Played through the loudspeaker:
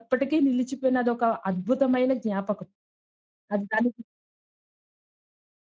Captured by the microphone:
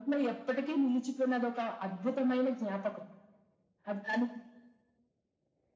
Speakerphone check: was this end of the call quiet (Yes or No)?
Yes